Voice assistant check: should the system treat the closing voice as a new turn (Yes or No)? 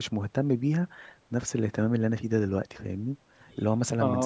No